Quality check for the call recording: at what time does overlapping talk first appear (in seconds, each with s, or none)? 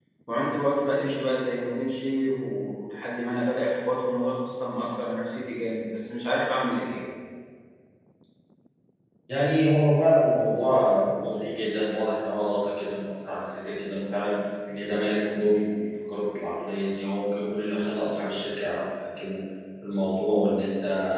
none